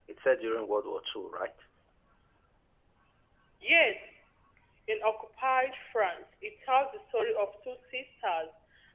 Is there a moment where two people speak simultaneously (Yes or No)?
No